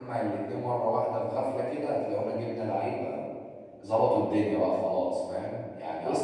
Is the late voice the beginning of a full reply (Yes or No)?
No